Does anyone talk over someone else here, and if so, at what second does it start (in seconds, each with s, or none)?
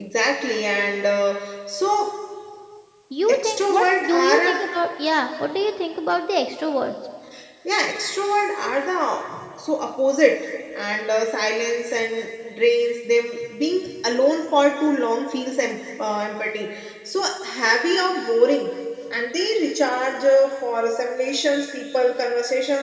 3.3 s